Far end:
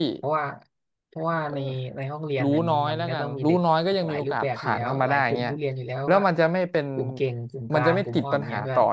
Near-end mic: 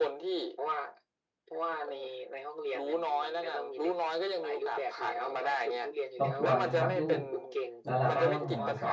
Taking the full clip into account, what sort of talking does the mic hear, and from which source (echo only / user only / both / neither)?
both